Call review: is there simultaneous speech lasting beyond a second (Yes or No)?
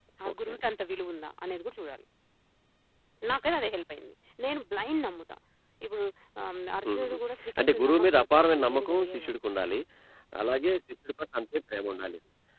Yes